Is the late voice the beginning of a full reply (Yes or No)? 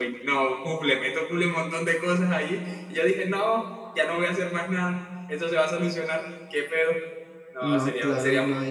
Yes